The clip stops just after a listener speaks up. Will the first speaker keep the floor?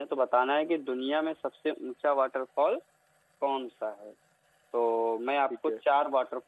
Yes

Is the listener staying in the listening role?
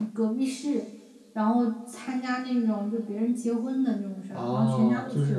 No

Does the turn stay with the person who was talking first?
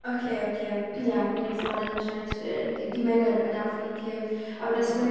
Yes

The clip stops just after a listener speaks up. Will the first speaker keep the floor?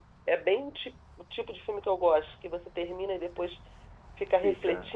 No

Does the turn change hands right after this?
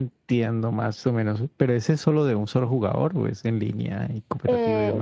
Yes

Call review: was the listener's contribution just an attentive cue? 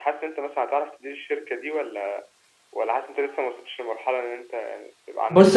No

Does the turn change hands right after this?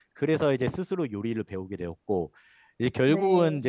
No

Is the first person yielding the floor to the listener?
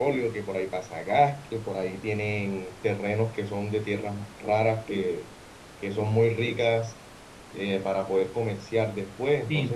Yes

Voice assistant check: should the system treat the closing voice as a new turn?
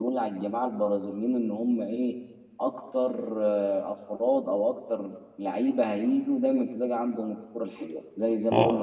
No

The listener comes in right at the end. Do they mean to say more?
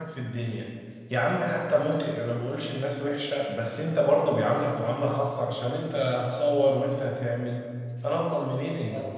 Yes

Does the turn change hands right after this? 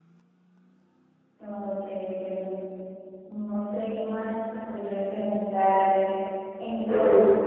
No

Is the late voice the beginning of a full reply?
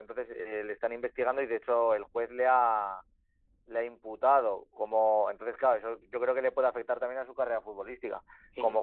No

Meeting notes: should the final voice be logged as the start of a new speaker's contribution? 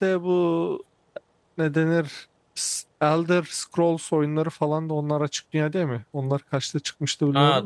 Yes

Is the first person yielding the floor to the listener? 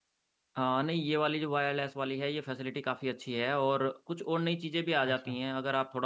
No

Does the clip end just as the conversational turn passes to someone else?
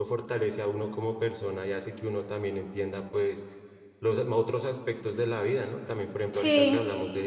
No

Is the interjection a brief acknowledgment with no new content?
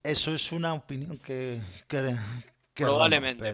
No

